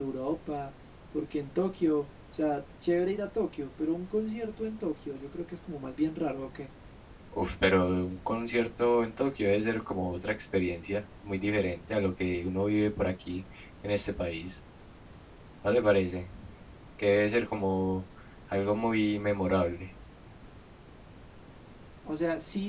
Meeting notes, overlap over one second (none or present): none